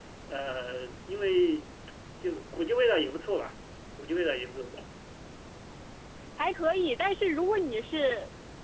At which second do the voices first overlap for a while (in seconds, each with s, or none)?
none